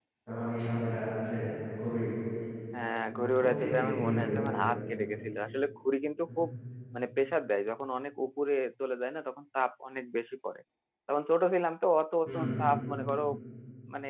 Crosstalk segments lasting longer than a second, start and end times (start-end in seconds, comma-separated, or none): 3.1-4.5